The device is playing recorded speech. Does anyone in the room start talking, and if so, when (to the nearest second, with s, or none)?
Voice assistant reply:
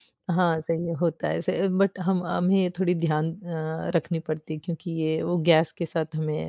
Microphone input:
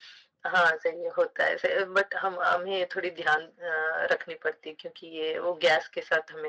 none